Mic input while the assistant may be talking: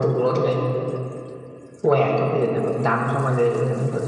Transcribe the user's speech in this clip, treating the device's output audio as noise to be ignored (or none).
none